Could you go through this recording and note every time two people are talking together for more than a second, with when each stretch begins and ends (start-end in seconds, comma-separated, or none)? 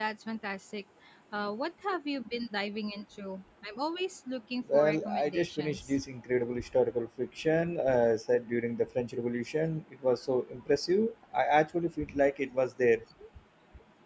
4.7-5.9